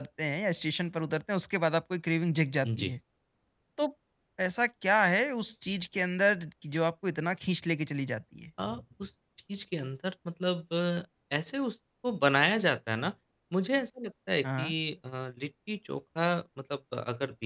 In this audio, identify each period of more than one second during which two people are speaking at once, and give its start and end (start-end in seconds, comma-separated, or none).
none